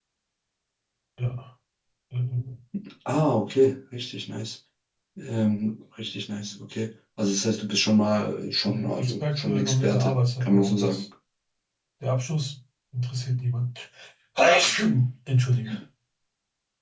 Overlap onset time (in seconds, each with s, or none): 8.9 s